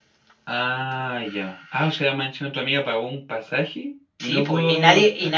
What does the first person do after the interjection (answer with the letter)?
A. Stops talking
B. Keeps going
A